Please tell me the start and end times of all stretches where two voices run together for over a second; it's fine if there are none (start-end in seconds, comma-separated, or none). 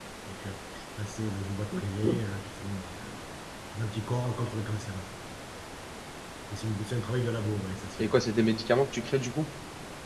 none